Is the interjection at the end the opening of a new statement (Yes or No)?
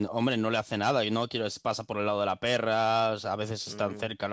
Yes